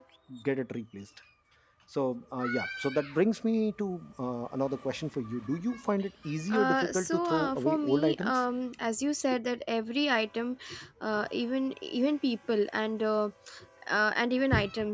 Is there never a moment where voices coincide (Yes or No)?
No